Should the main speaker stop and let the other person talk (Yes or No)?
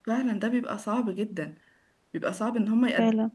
No